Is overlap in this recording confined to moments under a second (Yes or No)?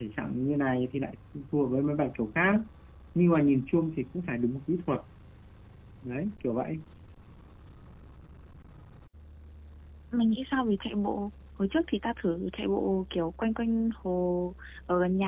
Yes